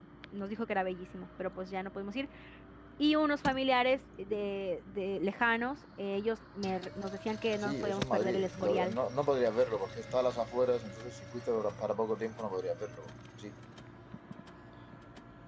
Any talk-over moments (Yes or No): Yes